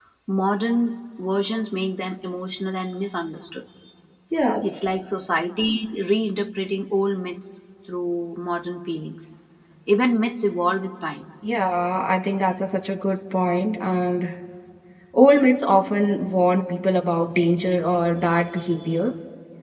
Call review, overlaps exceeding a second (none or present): none